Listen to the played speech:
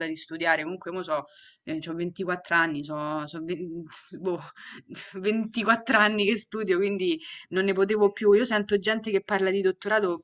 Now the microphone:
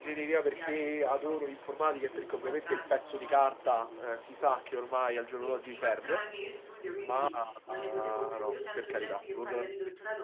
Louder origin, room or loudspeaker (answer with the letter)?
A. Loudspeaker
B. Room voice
B